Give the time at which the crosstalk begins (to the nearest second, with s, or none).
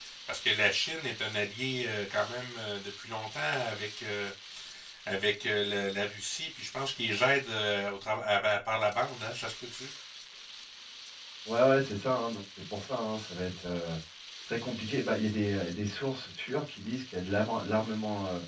none